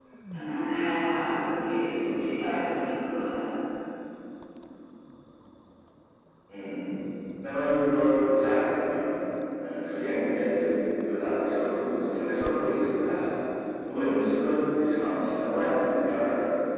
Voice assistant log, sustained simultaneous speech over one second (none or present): none